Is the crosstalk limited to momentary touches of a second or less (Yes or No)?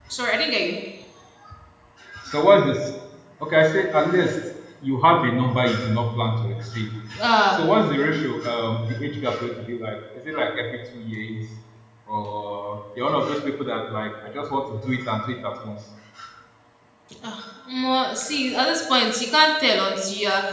Yes